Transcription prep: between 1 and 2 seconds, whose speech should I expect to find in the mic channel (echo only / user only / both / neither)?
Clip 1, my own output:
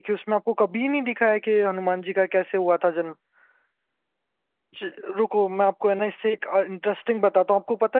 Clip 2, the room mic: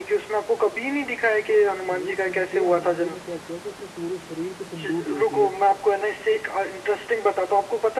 both